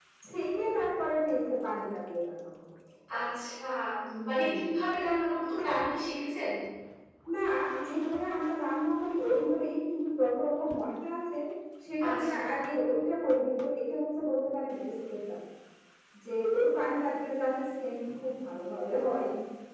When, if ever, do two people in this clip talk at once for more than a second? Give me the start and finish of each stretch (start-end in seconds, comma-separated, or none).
none